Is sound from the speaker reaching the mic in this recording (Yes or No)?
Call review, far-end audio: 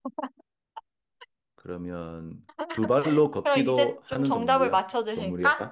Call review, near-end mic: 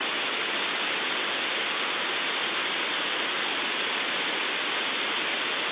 No